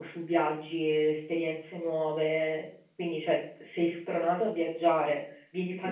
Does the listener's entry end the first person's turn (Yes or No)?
Yes